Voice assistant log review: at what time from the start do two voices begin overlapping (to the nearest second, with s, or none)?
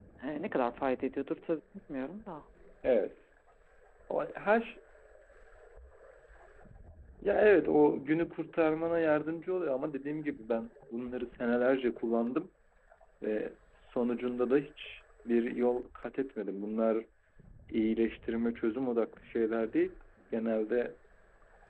none